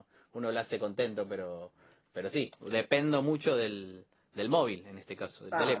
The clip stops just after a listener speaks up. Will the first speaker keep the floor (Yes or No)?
No